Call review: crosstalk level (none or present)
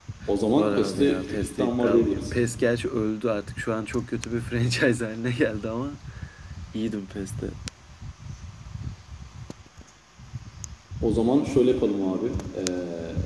present